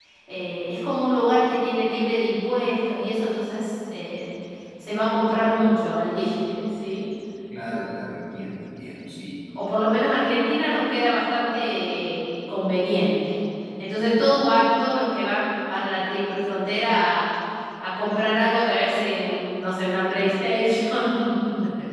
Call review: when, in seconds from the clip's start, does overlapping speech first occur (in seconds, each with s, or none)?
none